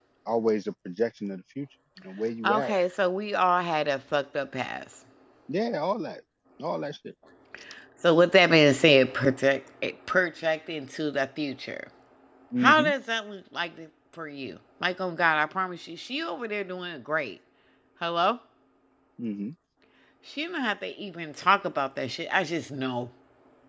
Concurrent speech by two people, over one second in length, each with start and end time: none

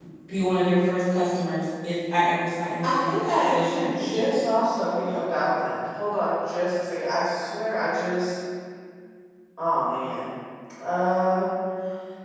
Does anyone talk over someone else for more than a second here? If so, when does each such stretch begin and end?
2.8-4.4

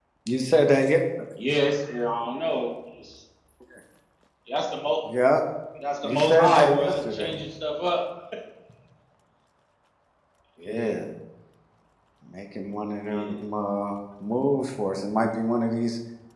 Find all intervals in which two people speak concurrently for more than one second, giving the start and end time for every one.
6.0-7.3

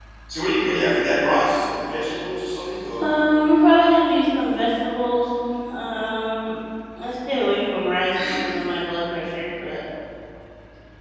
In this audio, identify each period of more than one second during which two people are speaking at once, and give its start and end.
none

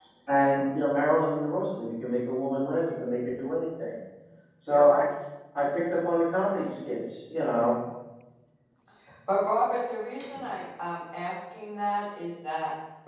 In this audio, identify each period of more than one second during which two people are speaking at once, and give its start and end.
none

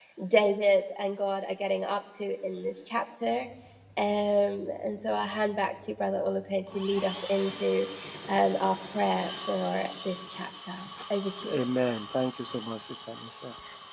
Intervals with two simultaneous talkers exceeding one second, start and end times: none

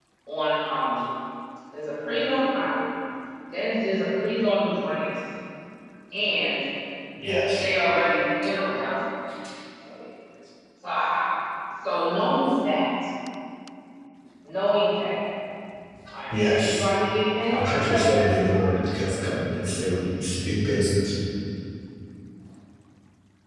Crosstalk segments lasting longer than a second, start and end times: 17.5-18.7

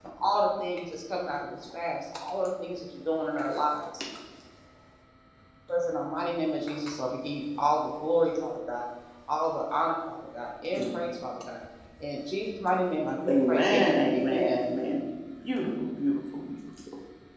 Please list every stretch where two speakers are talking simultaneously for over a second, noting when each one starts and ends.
13.3-14.6

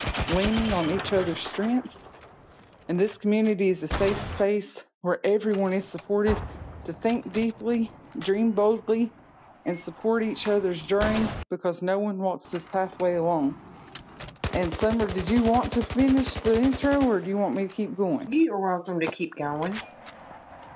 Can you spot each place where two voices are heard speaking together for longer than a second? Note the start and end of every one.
none

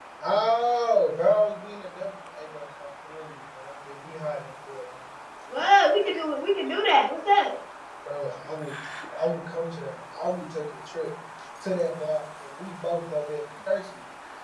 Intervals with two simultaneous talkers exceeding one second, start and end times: none

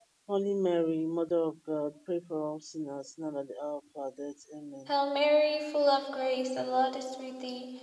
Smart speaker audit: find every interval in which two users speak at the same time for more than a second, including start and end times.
none

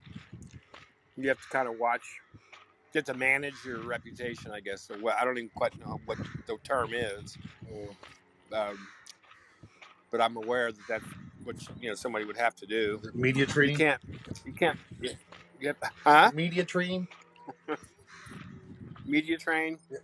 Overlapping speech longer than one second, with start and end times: none

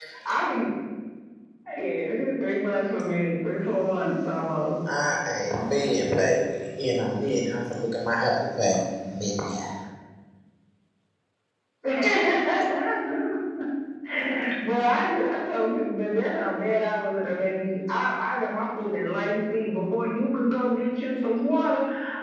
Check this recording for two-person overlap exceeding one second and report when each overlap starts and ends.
none

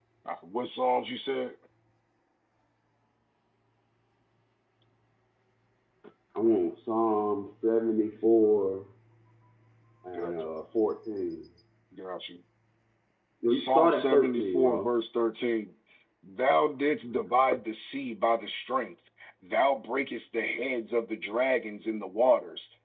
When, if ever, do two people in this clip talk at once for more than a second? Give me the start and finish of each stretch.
13.5-14.9

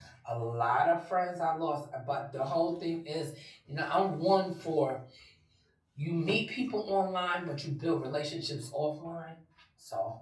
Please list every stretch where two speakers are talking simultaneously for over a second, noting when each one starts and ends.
none

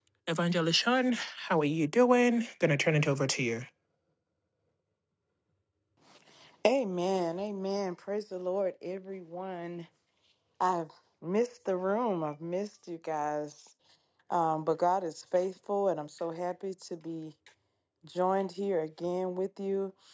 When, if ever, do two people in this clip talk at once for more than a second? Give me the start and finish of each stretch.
none

